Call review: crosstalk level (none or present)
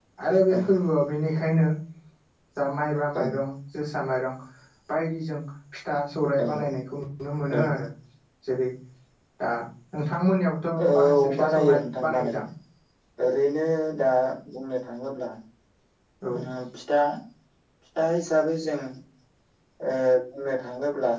present